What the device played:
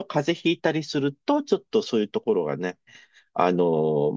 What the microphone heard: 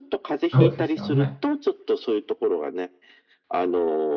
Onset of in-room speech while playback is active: 1 s

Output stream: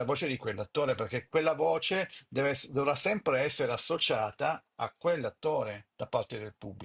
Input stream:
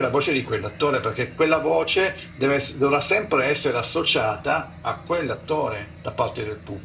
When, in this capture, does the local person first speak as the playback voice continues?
none

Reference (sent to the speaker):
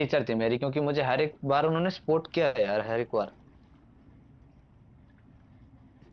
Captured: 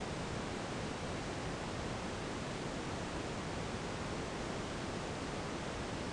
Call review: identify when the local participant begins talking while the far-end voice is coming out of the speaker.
none

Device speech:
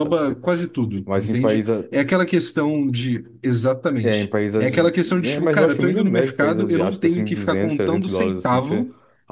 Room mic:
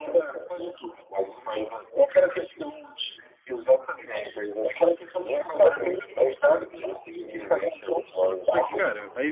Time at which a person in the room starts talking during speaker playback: 8 s

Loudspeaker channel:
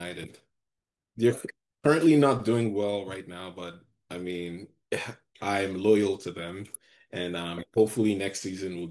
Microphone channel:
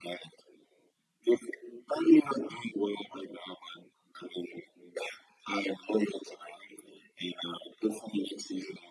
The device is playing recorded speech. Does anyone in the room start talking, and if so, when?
none

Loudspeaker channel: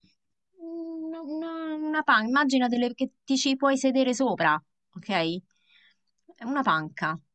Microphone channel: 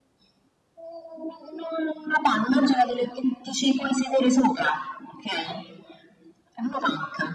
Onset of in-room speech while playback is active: none

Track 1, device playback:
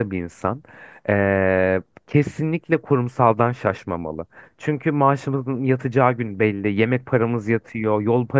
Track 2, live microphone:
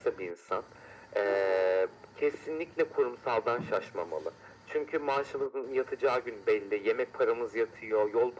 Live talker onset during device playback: 1 s

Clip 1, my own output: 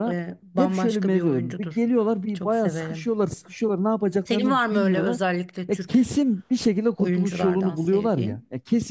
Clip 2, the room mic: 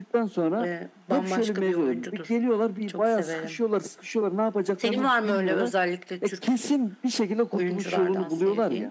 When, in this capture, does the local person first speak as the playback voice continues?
none

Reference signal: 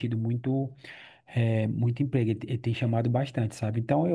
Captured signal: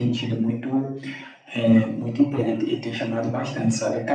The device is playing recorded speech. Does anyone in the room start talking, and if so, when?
none

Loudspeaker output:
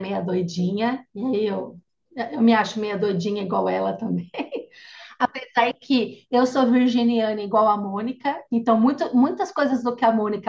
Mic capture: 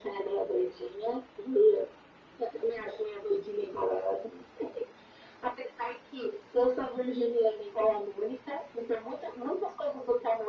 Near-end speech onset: none

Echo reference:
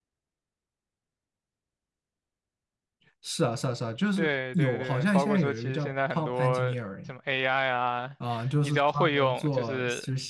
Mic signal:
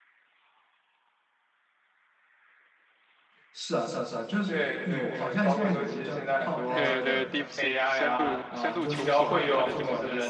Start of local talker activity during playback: 7 s

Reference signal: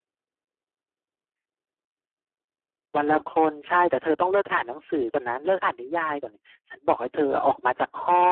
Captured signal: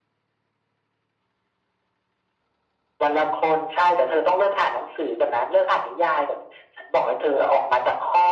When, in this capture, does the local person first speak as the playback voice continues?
none

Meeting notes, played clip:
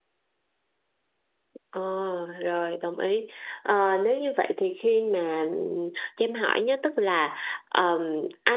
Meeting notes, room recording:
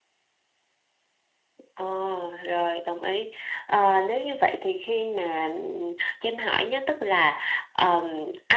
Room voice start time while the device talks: none

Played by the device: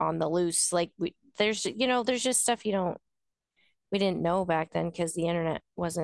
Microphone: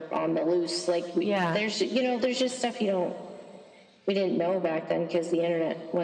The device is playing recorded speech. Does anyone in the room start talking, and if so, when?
1 s

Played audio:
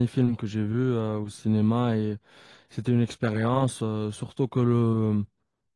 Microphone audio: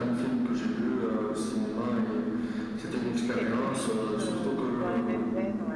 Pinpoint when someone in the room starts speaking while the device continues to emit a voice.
3 s

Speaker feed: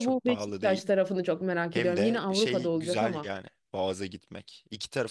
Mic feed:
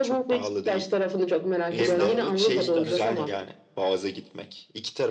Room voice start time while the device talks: 2 s

